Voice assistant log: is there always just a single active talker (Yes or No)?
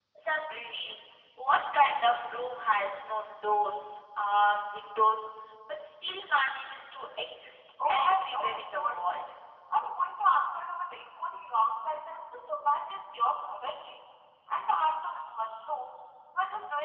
No